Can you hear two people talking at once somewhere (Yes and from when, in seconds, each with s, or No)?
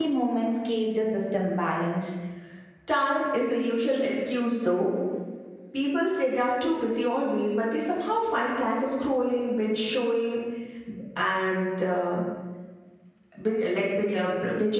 No